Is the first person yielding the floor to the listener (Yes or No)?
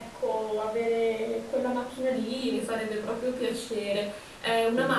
No